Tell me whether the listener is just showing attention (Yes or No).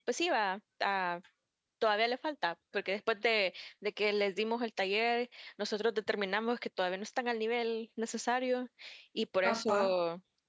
Yes